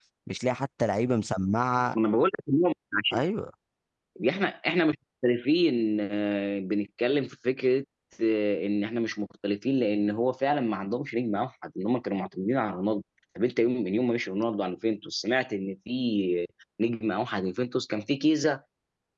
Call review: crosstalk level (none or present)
none